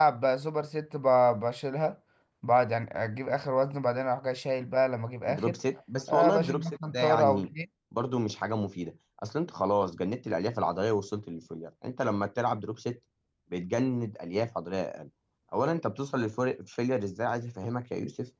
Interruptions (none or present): present